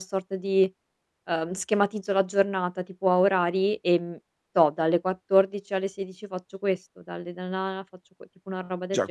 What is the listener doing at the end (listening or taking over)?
taking over